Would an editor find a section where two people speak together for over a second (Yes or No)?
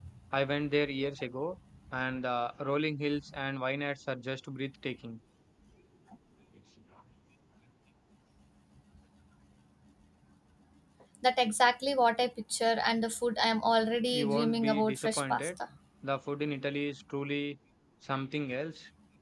Yes